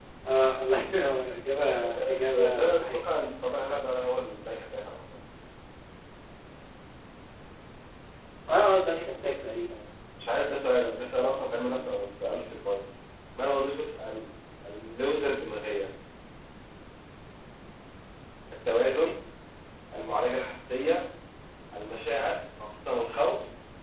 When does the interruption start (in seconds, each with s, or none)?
1.6 s